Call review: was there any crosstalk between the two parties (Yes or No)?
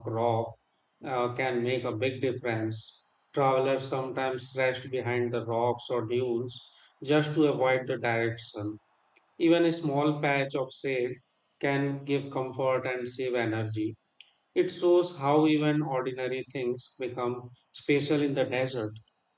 No